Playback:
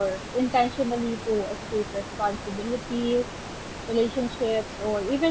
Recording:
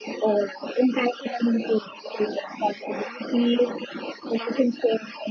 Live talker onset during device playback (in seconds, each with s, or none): none